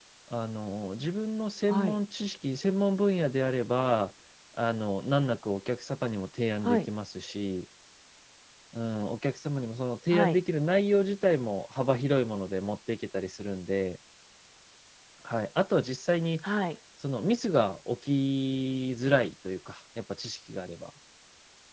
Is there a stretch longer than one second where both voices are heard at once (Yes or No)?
No